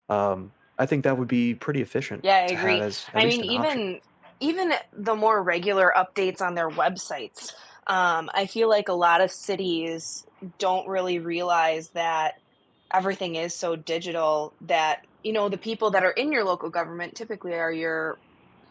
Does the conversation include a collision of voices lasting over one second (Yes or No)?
Yes